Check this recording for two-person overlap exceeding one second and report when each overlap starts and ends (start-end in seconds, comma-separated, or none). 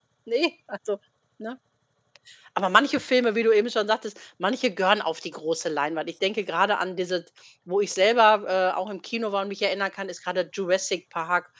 none